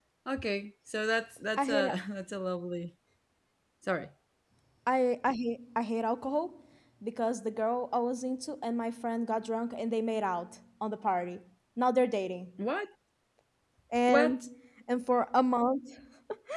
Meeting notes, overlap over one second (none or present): none